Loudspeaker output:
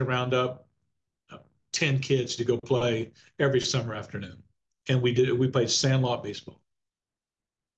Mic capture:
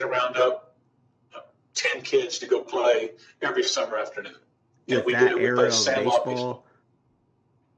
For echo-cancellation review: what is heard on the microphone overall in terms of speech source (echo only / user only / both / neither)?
both